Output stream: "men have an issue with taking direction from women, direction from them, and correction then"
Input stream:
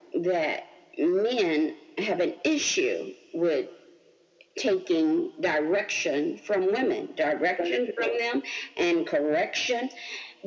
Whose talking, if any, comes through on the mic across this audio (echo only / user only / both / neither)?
echo only